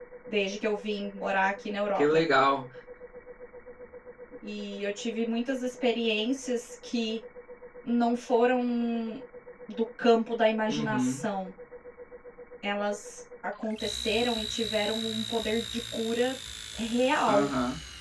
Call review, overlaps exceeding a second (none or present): none